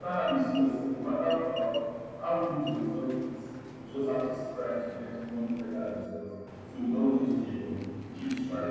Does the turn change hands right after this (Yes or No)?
Yes